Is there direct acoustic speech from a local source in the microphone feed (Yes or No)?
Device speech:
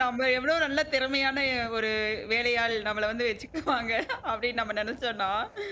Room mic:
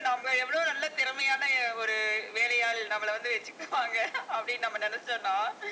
No